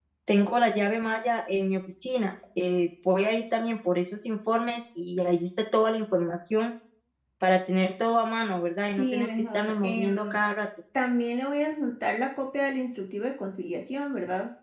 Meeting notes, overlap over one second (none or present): present